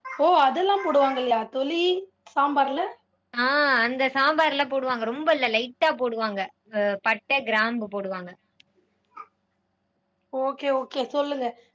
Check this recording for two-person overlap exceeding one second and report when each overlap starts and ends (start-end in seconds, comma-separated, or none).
none